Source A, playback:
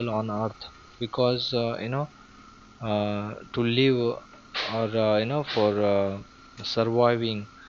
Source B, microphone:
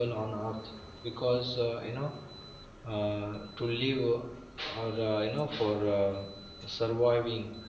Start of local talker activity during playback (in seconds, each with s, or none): none